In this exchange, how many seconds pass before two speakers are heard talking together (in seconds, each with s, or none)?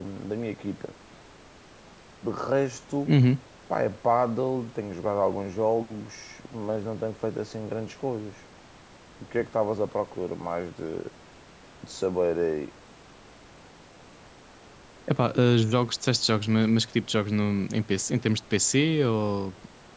none